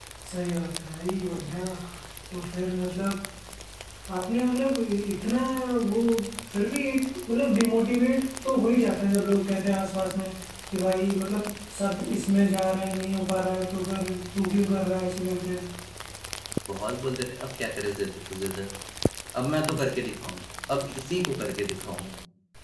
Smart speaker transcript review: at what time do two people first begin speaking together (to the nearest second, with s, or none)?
none